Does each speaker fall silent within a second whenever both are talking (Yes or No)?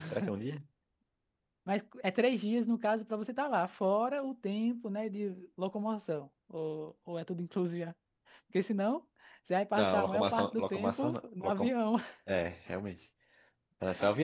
No